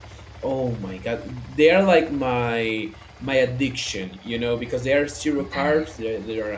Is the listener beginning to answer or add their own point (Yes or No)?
No